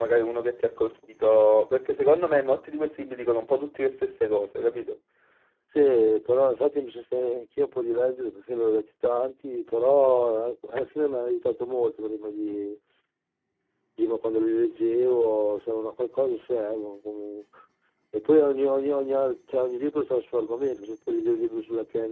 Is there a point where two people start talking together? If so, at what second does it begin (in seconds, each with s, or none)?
none